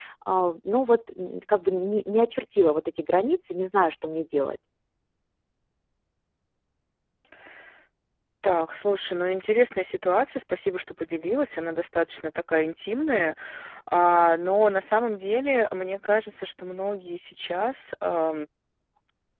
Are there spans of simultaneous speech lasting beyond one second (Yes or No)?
No